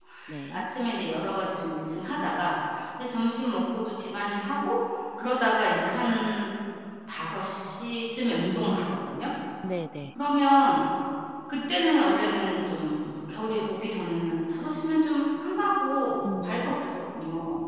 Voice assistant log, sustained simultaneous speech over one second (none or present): none